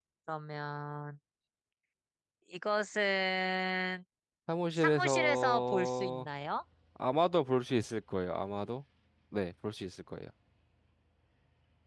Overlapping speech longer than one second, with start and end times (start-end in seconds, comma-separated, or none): 4.8-6.3